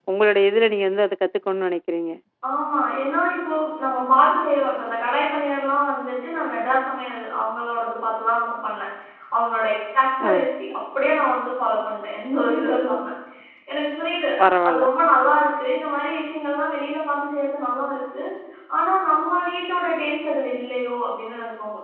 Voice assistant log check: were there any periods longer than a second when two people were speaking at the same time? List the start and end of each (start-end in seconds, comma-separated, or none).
none